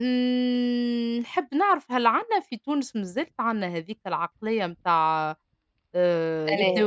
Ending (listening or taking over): listening